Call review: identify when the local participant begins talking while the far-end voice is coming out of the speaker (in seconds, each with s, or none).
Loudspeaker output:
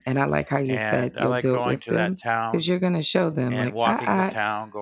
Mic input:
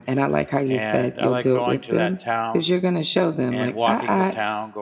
none